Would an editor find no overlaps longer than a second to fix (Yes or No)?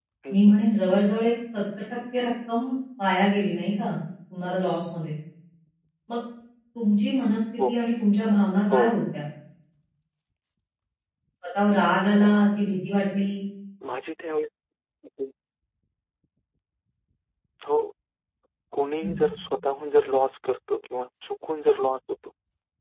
Yes